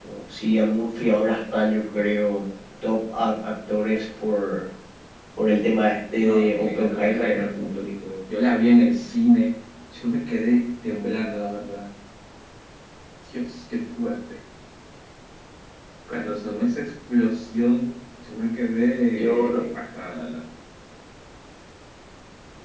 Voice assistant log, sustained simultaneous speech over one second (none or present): present